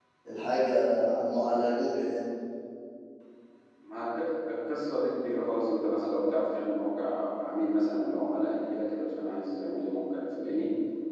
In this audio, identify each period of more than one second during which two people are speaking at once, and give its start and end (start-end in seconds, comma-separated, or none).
none